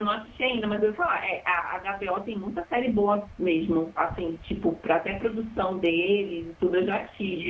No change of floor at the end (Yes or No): Yes